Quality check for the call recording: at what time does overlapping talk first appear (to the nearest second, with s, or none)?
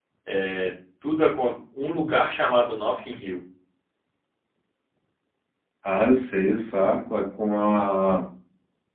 none